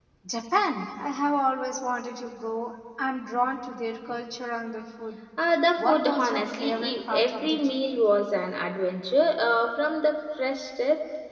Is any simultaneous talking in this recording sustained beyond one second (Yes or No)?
Yes